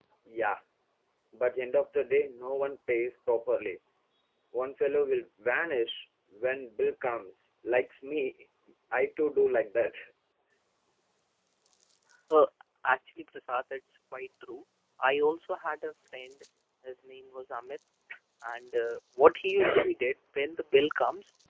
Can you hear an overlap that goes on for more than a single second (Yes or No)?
No